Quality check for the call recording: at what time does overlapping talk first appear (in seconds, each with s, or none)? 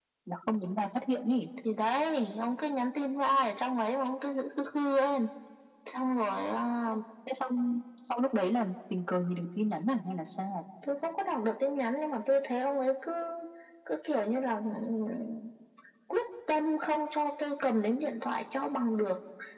none